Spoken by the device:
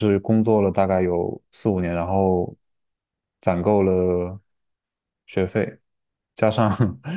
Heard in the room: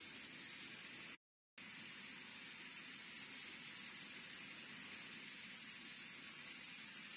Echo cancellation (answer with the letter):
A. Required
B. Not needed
B